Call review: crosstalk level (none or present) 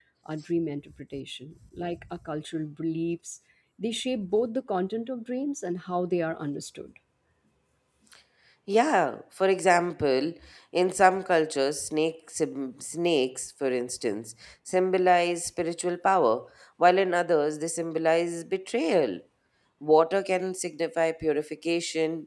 none